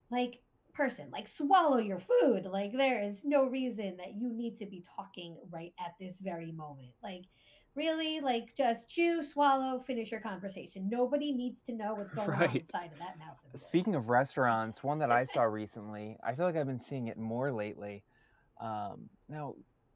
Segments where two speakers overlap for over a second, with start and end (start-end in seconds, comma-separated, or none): none